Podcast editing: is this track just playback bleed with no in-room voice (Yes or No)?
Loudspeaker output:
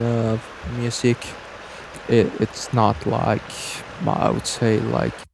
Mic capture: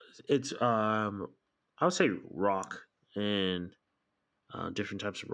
No